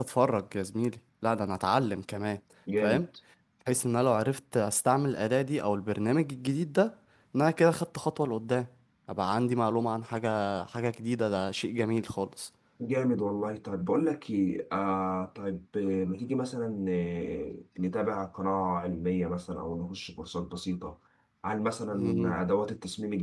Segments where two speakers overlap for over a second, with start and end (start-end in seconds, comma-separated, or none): none